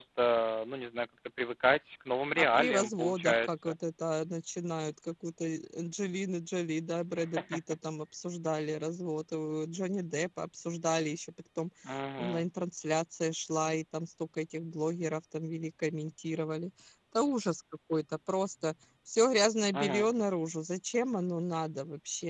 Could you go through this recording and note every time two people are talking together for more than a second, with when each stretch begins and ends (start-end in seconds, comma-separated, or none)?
2.4-3.8